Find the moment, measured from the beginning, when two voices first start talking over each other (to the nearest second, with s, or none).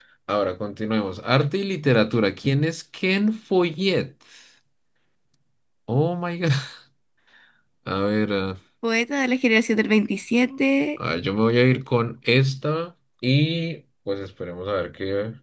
none